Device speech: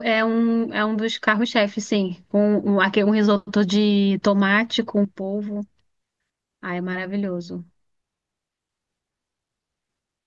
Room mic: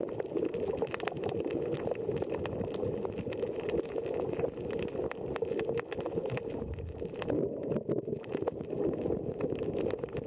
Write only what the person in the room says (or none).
none